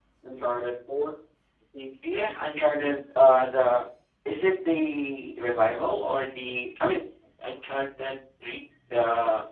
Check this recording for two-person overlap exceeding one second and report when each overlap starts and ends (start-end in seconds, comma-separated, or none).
none